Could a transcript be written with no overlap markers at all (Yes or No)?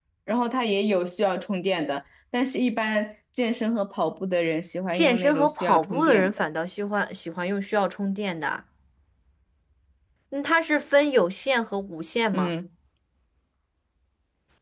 No